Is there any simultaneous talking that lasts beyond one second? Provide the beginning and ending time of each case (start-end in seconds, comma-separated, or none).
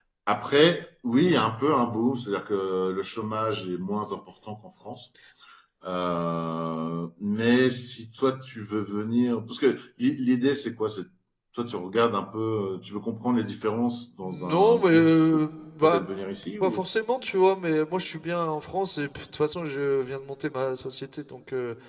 14.2-15.4